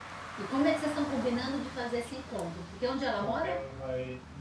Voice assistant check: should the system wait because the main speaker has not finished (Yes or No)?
No